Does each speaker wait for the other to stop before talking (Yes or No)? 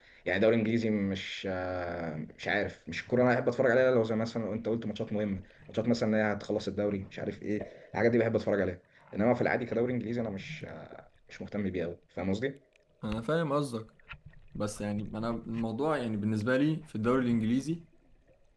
Yes